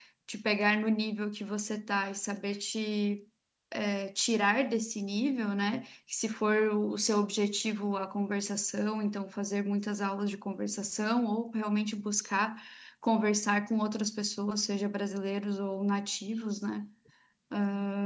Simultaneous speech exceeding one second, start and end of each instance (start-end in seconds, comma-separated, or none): none